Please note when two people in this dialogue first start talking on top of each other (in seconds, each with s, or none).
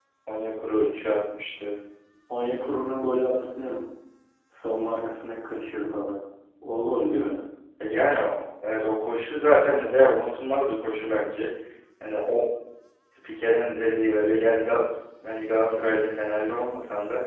none